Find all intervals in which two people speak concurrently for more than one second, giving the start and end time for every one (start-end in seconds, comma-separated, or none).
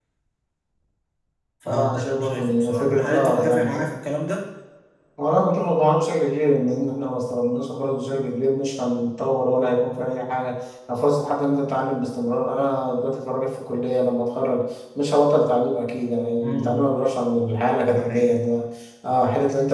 1.7-3.7